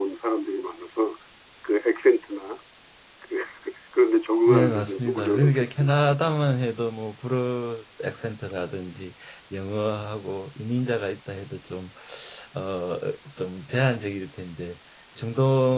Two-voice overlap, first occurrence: 4.5 s

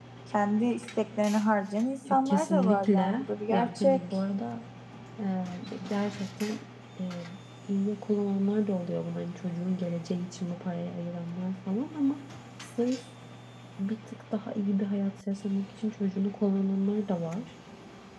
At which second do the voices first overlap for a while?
2.0 s

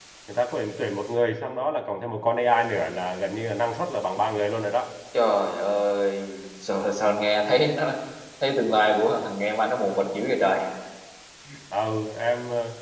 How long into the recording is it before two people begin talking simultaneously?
none

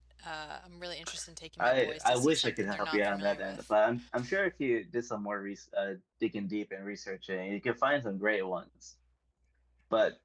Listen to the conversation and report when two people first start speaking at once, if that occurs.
1.6 s

